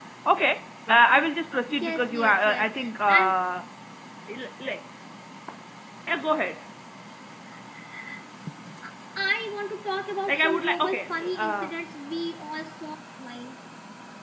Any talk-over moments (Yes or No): Yes